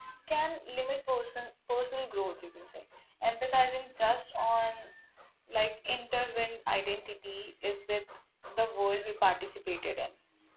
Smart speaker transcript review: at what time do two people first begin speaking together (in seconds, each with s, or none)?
none